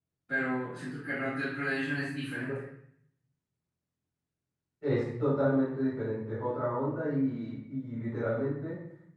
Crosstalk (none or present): none